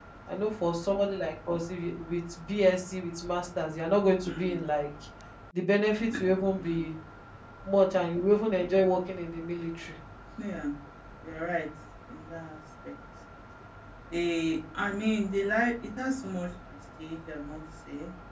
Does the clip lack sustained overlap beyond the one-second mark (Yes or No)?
Yes